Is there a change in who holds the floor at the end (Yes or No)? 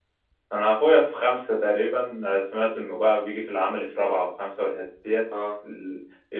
No